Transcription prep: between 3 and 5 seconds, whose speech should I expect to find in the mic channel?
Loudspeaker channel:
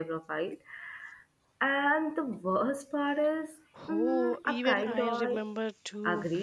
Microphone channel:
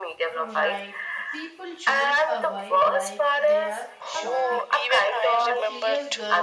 both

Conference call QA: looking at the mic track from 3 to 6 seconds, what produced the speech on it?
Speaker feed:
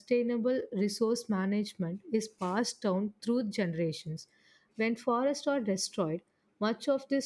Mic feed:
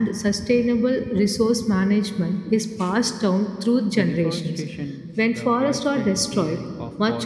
both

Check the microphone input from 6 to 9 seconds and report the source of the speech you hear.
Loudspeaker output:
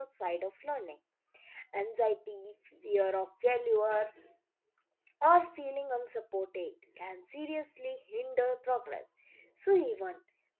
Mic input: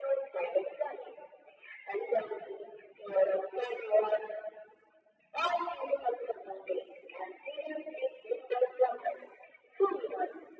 echo only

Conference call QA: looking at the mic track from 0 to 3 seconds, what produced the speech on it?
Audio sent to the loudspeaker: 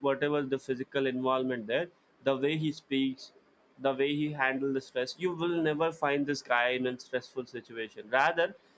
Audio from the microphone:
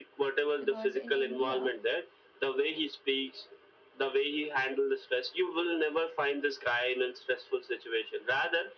both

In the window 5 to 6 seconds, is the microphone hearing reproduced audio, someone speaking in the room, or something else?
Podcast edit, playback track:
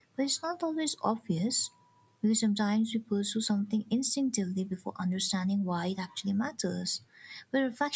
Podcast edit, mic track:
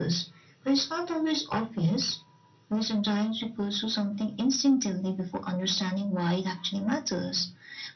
echo only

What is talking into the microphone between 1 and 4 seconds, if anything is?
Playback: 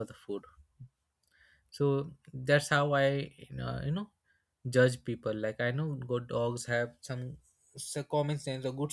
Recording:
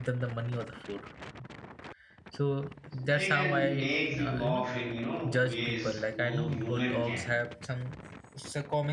both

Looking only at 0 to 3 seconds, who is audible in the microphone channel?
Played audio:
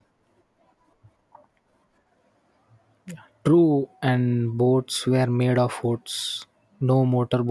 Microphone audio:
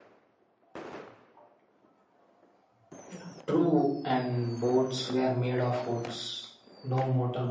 neither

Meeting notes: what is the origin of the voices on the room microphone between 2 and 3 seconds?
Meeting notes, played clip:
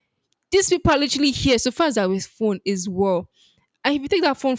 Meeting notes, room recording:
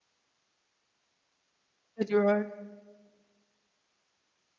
user only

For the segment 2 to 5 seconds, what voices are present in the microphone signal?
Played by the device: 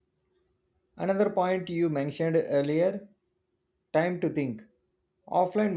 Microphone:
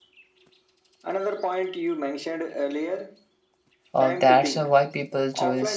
both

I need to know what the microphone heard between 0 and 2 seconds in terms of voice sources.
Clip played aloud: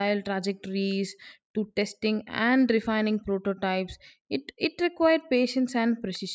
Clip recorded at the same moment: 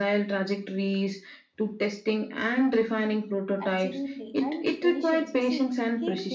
echo only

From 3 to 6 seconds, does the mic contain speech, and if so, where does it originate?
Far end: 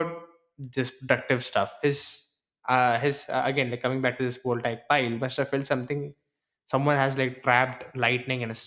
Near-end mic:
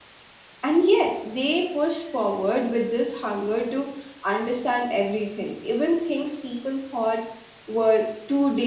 user only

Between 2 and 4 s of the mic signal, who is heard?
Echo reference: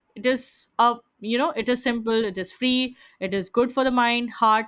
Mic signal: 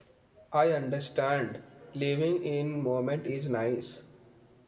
user only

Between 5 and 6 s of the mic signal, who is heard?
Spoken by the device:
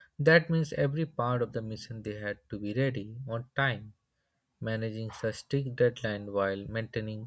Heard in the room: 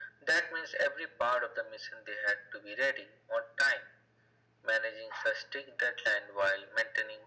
echo only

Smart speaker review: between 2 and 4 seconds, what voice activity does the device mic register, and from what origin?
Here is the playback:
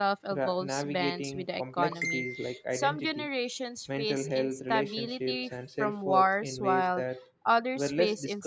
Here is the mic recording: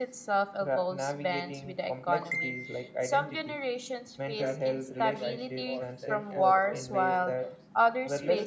echo only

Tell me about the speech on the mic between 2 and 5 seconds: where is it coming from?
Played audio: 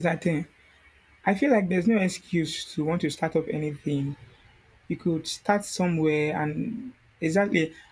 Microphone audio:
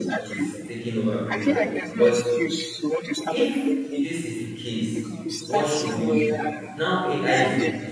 both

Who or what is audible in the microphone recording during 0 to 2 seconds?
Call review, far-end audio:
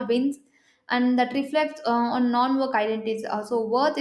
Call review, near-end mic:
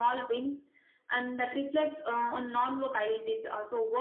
echo only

